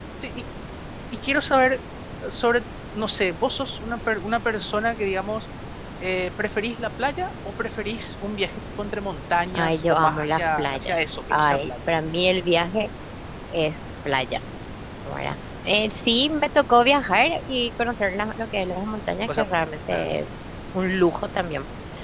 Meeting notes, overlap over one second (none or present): present